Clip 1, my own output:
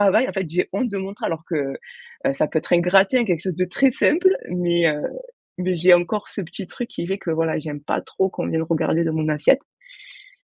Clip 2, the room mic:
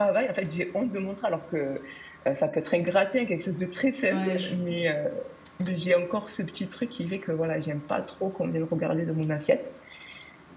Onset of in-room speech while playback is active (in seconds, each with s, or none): 4.1 s